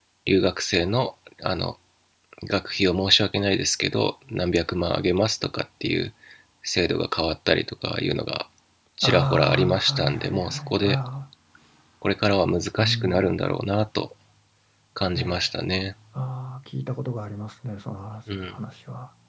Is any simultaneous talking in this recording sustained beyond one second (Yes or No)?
Yes